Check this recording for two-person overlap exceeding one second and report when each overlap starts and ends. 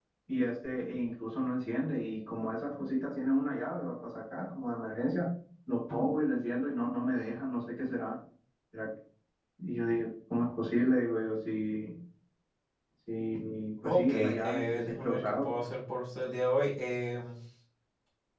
13.8-15.6

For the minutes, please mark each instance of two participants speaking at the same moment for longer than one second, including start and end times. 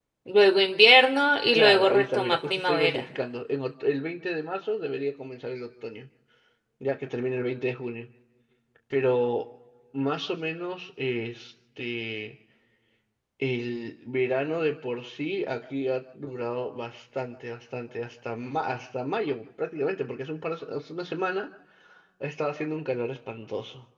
1.5-3.1

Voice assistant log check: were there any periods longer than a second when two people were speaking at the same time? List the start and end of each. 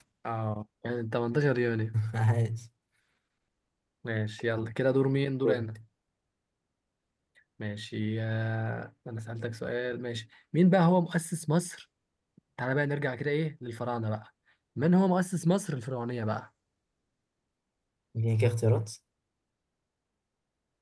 none

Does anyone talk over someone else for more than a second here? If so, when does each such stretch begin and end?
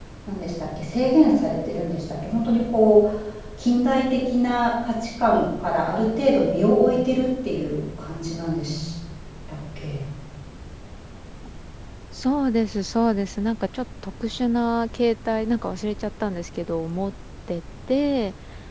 none

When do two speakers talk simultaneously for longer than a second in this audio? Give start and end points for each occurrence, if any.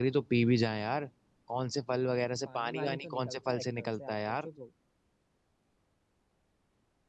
2.5-4.5

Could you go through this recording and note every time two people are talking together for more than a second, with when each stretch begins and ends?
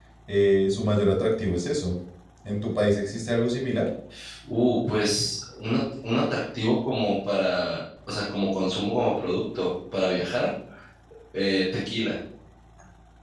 none

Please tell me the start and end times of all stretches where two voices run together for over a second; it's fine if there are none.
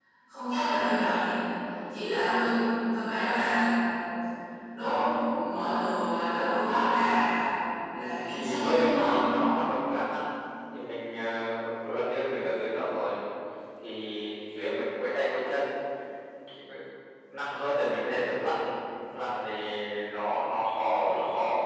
7.9-9.2

